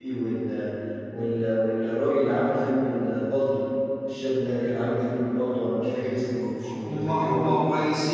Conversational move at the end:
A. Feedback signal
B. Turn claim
B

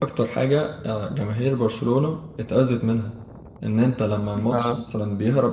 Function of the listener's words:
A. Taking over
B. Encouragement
B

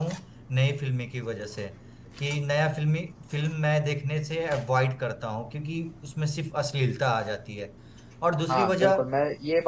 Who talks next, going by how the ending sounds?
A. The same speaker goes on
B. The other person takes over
B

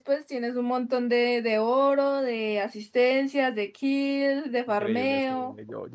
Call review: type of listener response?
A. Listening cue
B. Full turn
B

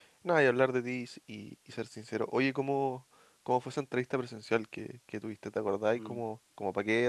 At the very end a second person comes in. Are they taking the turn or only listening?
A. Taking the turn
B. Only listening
B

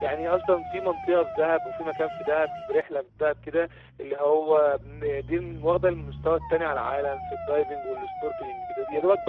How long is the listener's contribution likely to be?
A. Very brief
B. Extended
A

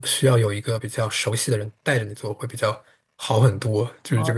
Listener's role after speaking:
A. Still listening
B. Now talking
B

